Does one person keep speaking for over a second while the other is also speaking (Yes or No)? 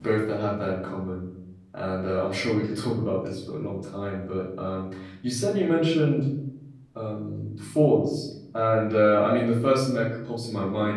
No